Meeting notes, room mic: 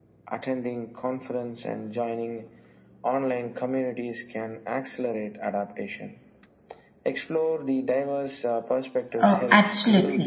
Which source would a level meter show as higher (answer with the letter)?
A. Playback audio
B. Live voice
B